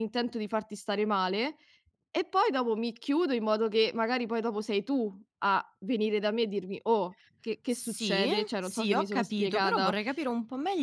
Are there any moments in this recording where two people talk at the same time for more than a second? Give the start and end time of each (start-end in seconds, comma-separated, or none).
7.7-9.9